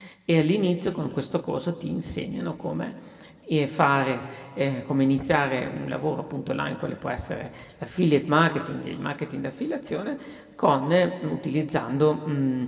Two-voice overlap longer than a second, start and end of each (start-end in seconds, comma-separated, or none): none